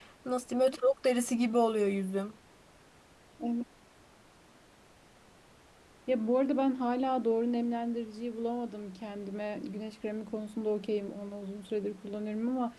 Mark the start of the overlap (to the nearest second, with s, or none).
none